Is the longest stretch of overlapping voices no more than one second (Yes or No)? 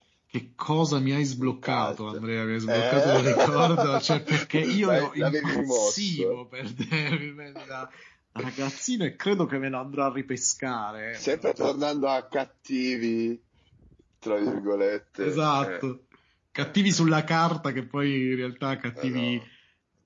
No